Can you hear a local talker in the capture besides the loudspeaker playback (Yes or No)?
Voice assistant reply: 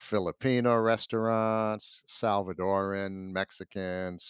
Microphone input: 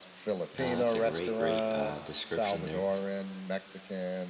Yes